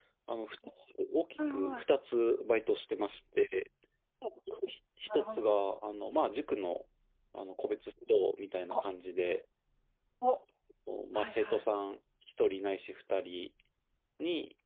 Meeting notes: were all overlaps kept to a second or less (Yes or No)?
Yes